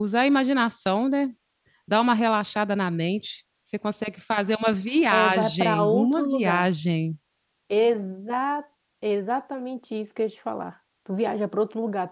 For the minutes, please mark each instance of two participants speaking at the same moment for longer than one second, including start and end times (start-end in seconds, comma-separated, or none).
5.1-6.7